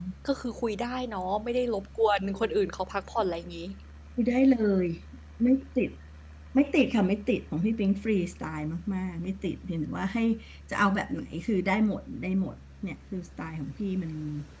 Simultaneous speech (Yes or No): No